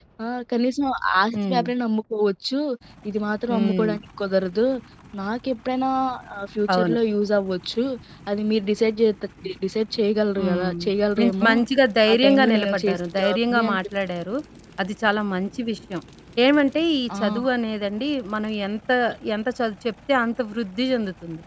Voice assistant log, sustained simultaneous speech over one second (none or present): present